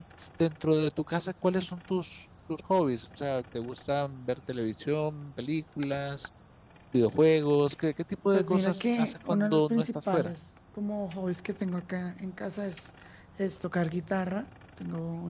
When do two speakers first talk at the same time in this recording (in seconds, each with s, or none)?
8.3 s